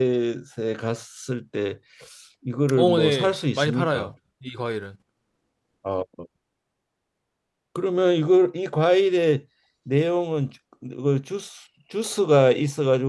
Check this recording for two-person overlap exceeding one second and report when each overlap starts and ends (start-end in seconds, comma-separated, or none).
2.8-4.1